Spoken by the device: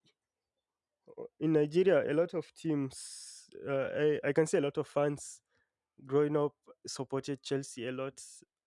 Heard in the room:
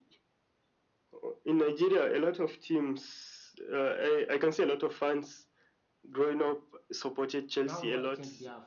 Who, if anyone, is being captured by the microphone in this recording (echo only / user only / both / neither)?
both